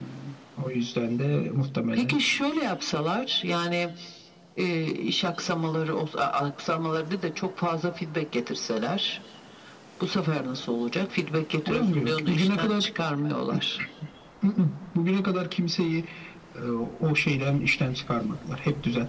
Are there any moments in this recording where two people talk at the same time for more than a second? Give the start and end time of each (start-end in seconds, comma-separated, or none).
11.7-12.9